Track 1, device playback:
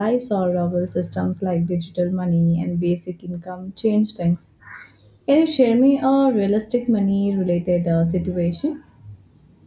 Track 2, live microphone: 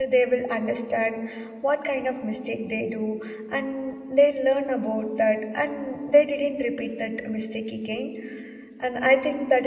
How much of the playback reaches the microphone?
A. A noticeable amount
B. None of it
B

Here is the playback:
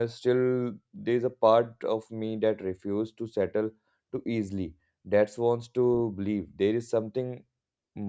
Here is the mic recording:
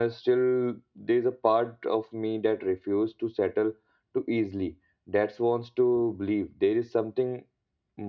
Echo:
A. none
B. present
B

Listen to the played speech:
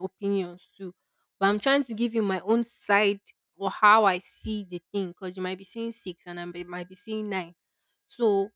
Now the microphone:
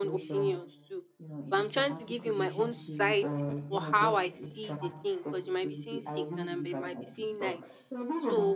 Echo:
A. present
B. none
A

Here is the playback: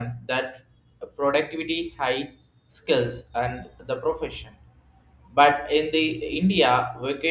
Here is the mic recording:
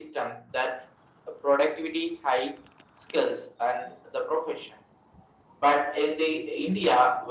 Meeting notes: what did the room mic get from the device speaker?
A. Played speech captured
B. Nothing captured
A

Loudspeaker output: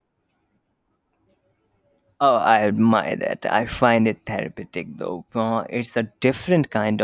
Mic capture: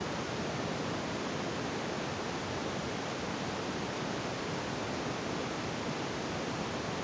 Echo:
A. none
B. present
A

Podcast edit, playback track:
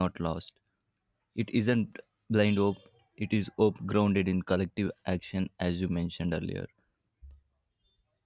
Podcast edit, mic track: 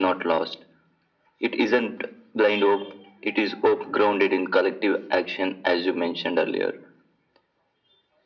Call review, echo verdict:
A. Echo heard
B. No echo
A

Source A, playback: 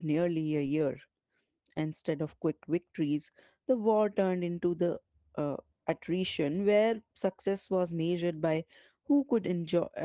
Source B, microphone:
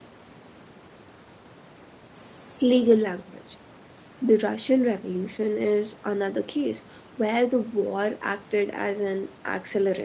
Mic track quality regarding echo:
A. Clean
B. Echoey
A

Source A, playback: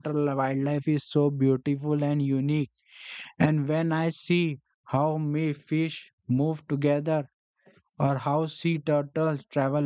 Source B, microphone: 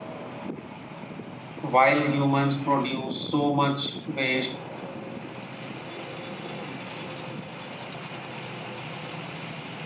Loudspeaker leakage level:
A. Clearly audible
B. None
B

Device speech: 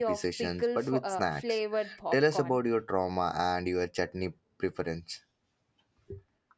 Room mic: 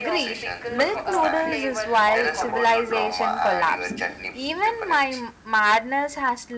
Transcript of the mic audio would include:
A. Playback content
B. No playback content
A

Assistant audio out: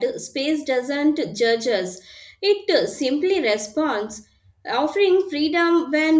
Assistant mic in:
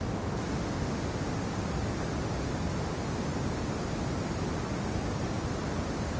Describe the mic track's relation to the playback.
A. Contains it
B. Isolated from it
B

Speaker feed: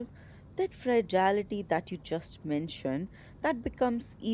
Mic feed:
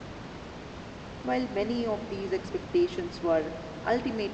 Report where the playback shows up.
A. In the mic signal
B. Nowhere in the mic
B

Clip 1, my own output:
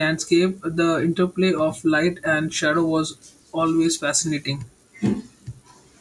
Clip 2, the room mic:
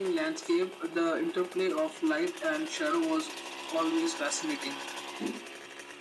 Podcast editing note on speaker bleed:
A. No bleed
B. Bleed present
B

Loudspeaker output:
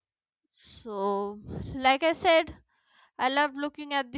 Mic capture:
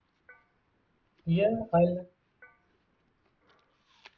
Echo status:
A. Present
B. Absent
B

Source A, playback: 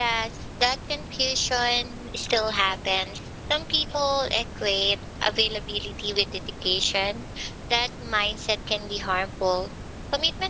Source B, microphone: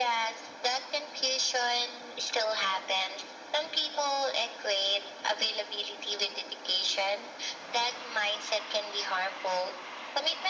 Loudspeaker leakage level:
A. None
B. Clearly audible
B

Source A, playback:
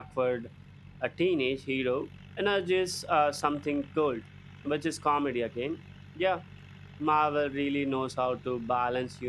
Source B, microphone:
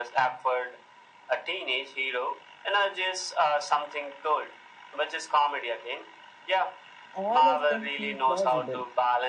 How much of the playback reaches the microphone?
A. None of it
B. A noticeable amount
B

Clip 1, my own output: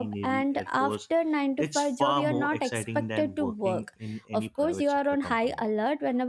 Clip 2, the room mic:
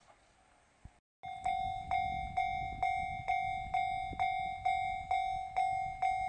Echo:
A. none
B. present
A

